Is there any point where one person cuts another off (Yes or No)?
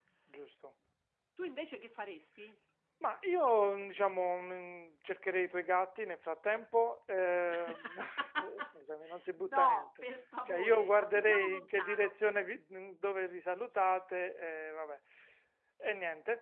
Yes